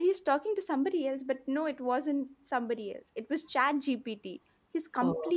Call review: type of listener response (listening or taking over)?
listening